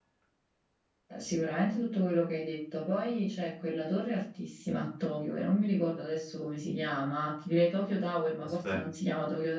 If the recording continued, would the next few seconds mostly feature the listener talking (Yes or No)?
No